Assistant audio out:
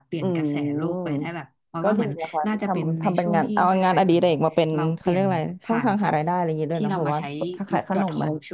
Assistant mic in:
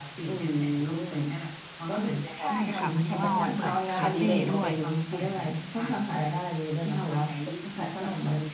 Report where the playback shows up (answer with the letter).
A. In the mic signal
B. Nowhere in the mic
A